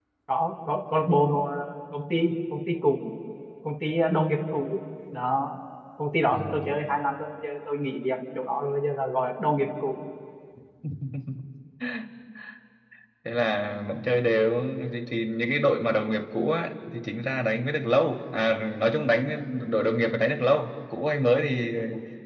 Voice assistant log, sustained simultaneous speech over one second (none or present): none